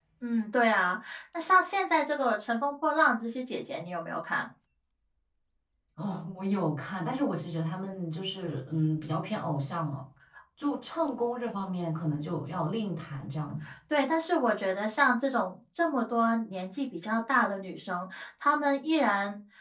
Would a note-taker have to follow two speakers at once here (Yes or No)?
No